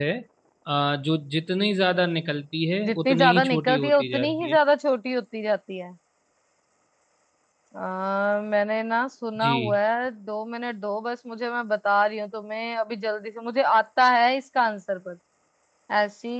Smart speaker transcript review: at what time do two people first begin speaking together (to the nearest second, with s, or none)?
3 s